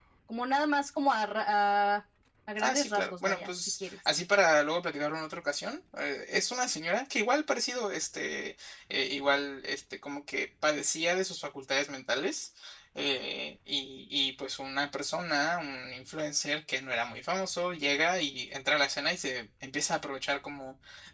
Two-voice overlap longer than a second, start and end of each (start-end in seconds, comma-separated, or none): 2.6-4.0